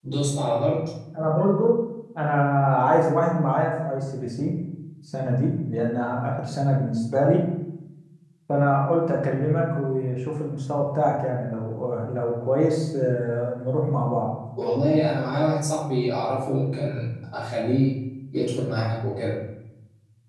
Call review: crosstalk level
none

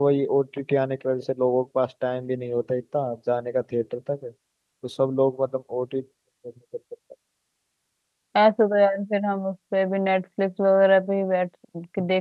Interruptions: none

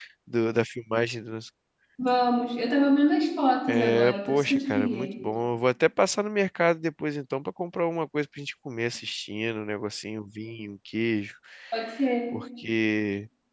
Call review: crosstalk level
present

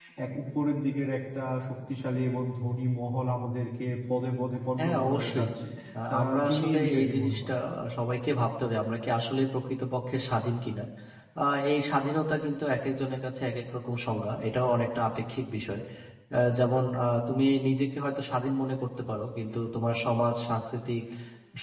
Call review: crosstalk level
present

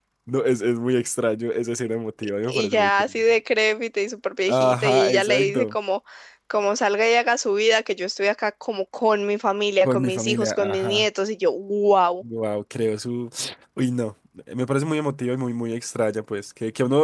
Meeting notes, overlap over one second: present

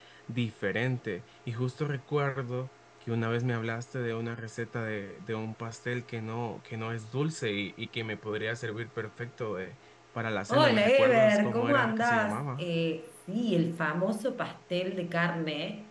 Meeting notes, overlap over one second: present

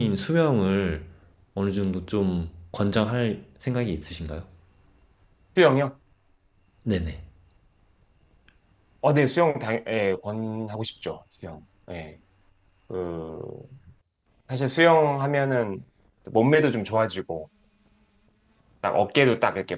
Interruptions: none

